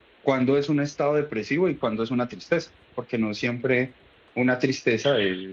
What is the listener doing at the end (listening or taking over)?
taking over